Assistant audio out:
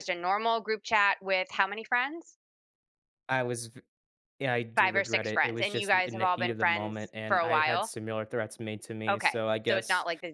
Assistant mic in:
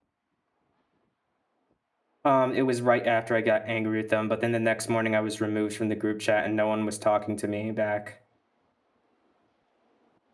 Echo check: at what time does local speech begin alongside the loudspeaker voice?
2.2 s

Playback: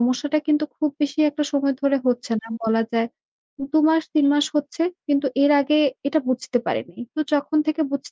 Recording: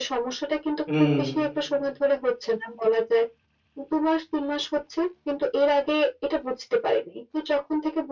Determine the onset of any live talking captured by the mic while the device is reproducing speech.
0.9 s

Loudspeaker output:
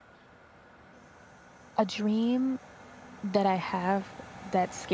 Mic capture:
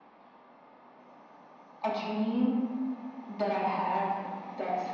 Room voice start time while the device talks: none

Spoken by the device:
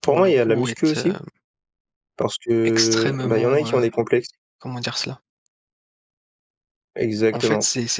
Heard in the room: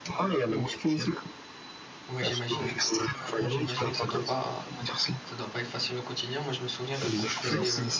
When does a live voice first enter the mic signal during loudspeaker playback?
2.1 s

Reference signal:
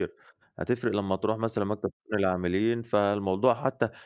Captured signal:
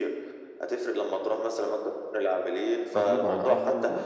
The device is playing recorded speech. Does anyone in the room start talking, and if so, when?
2.9 s

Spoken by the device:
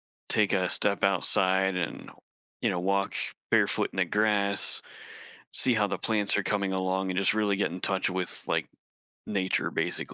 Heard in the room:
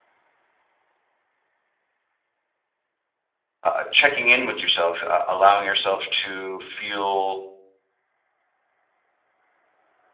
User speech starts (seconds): 3.6 s

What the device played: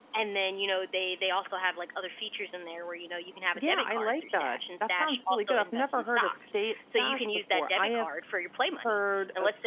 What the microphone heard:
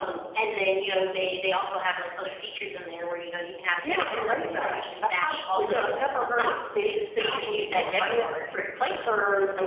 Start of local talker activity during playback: 5.6 s

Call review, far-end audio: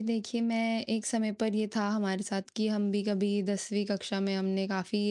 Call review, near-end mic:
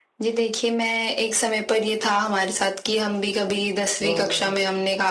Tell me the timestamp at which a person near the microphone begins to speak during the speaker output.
4.1 s

